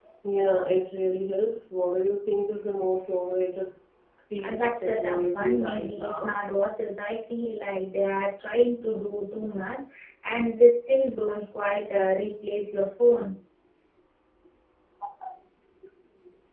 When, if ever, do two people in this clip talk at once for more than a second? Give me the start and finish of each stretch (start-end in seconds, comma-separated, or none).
4.4-6.3